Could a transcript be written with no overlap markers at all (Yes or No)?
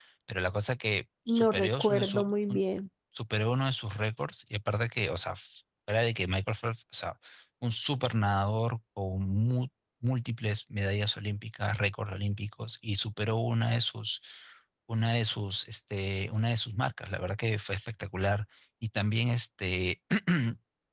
No